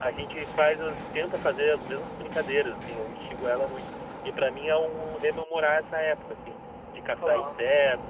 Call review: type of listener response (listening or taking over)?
listening